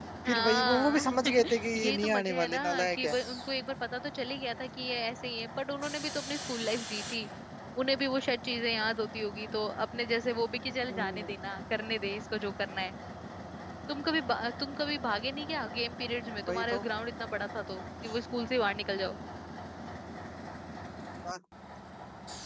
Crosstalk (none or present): present